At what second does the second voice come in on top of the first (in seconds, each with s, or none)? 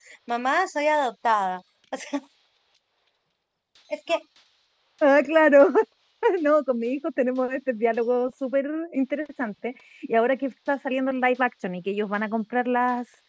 none